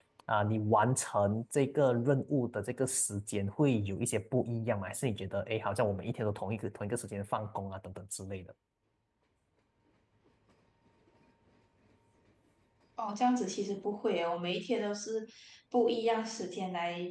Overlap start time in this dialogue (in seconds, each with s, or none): none